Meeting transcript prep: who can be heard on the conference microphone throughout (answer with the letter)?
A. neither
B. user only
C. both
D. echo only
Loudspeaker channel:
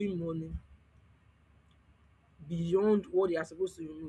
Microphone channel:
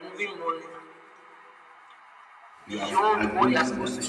C